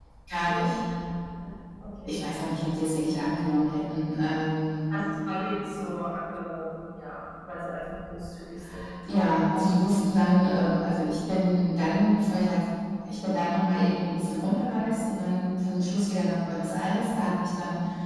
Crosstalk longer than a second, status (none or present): none